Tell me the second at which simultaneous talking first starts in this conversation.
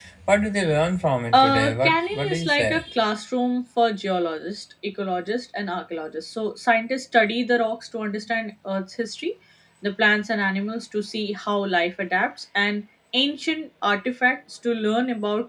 1.3 s

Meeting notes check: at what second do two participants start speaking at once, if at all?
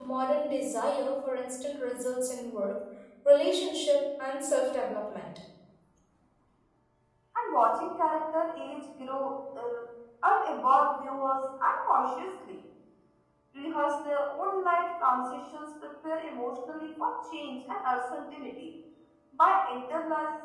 none

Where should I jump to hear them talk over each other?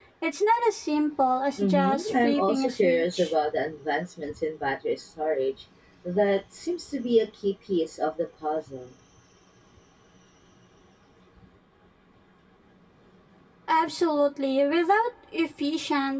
1.6 s

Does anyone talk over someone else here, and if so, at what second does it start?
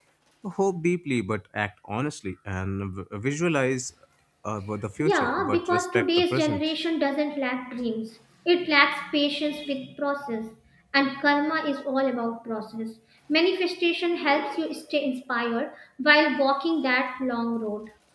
5.0 s

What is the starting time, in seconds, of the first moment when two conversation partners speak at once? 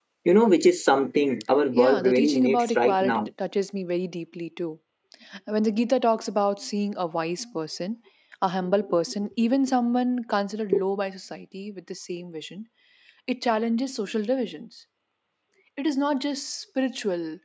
1.8 s

